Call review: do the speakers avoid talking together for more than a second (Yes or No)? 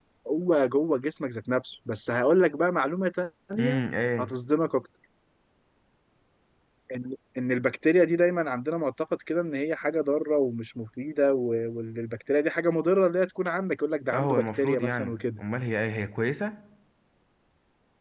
No